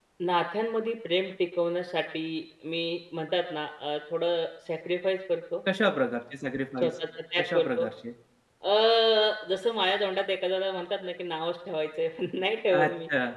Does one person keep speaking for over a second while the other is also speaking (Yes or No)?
No